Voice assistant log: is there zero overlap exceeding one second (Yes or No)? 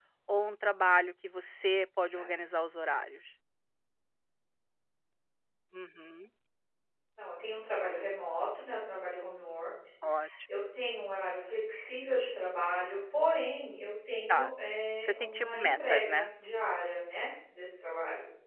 No